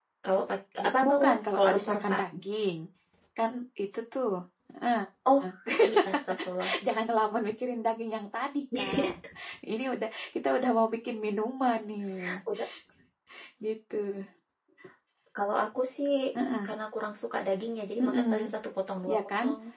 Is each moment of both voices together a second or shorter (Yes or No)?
No